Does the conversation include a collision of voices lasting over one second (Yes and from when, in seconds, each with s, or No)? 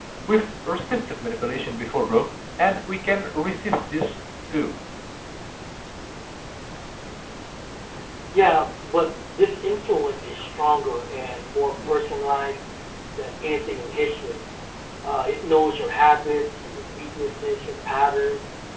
No